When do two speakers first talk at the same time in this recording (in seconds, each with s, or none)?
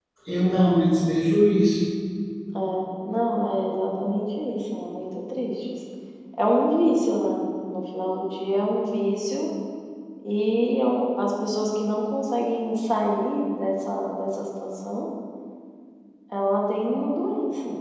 none